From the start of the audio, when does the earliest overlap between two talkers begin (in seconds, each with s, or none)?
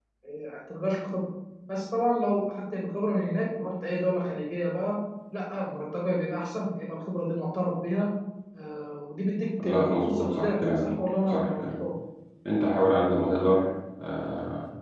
9.6 s